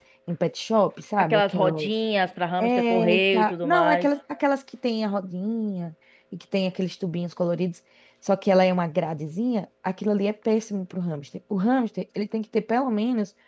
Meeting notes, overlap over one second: present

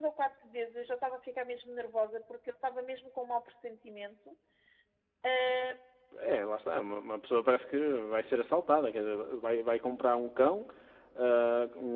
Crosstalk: none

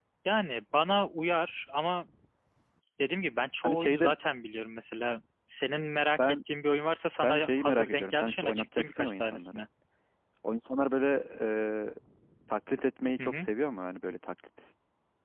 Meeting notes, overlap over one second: present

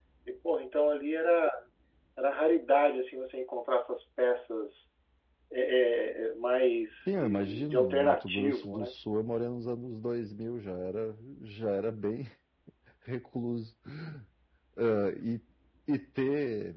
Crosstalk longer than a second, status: present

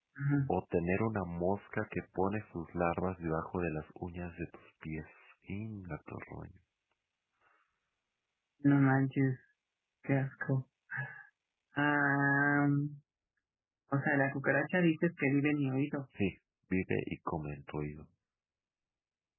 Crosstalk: none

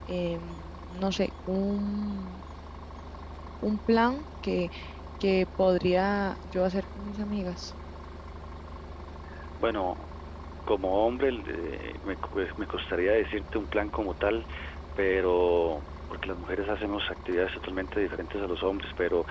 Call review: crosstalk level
none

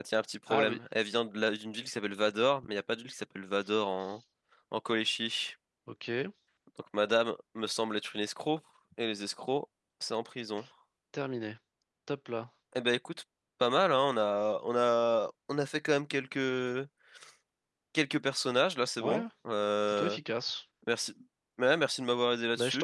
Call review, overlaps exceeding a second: none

